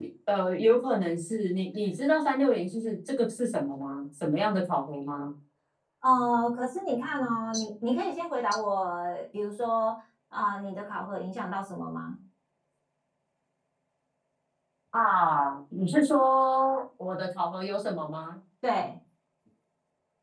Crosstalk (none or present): none